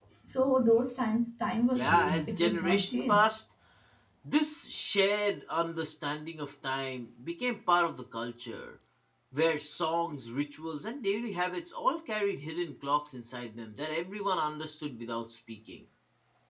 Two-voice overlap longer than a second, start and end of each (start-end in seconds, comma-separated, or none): 1.7-3.2